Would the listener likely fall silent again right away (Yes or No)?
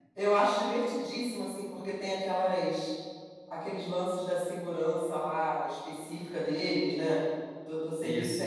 Yes